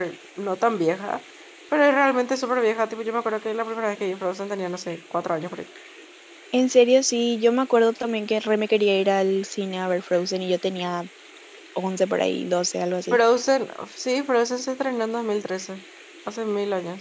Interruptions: none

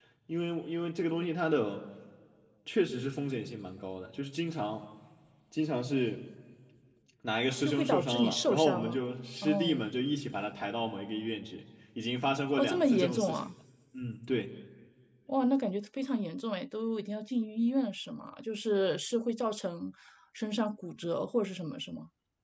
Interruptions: present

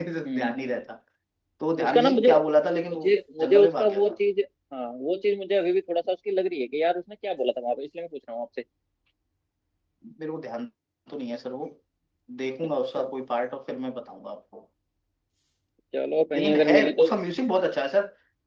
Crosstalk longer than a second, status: present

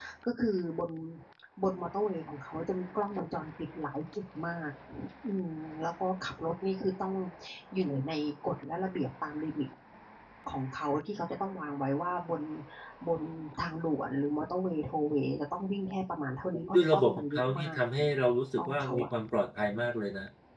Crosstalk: present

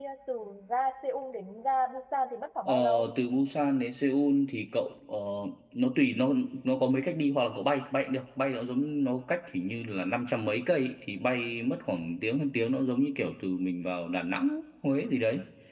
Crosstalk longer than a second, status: none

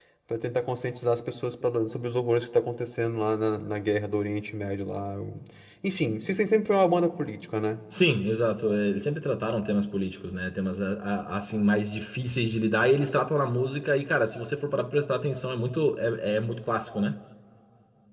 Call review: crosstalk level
none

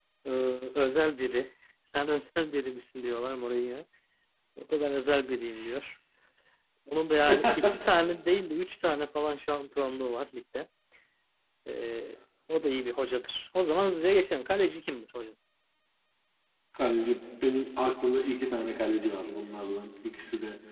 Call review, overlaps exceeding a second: none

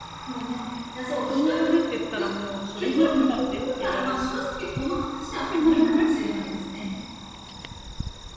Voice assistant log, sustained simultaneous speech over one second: present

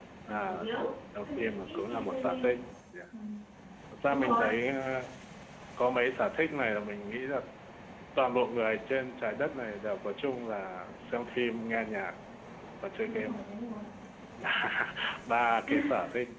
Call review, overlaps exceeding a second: present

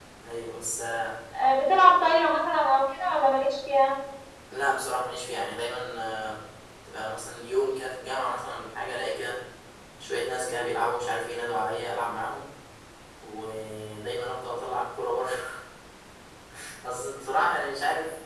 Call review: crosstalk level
none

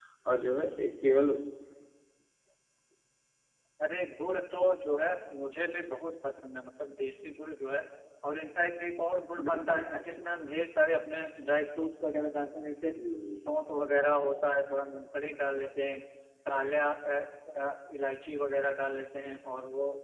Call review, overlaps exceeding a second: none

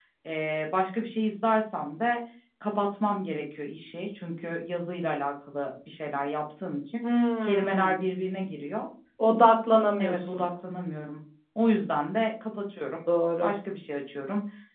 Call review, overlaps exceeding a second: none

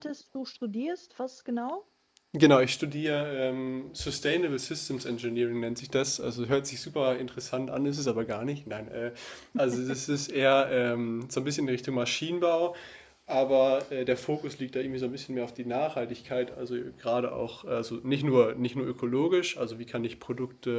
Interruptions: none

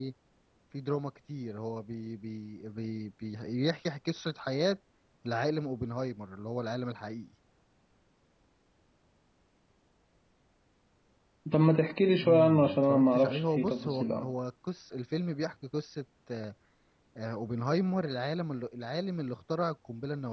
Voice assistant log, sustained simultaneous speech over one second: present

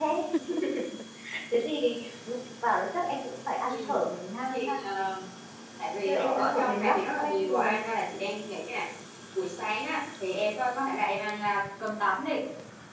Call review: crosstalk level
present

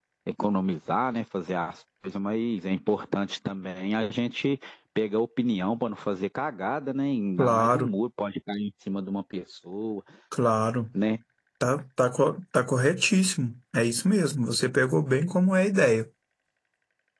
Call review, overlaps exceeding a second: none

